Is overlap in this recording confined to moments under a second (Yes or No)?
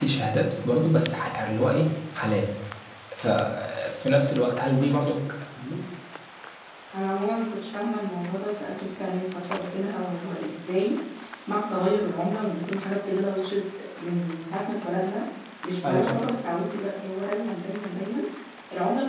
Yes